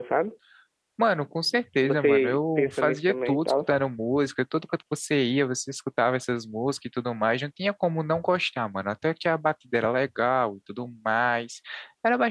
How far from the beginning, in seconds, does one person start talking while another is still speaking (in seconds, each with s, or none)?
1.8 s